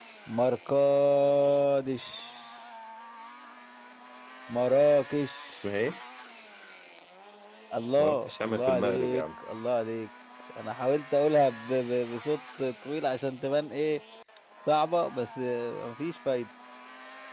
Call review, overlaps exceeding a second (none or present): present